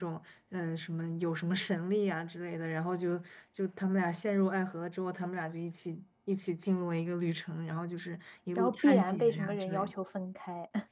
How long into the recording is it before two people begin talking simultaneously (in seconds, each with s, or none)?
8.6 s